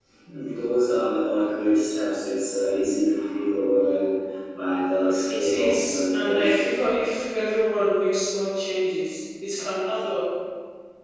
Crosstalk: present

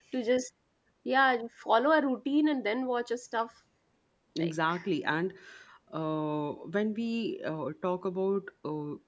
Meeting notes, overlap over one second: none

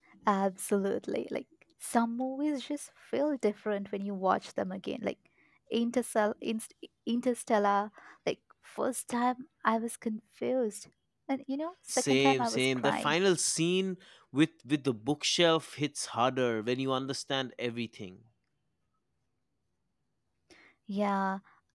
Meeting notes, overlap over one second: present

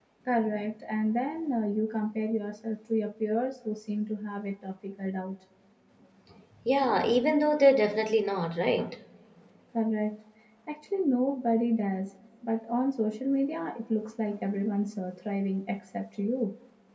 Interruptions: none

